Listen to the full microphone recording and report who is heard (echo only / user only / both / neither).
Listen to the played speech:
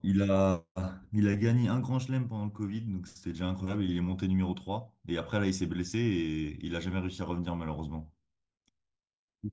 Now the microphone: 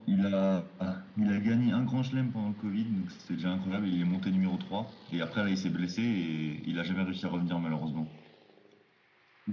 echo only